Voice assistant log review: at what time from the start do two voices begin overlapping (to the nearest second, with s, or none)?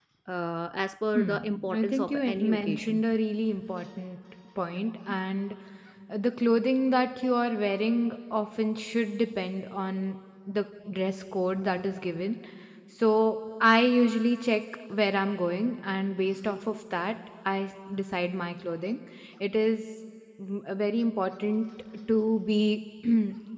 1 s